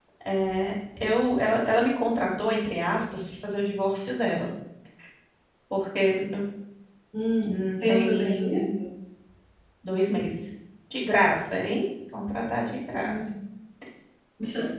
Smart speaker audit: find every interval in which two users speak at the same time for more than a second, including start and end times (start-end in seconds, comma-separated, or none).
7.4-8.7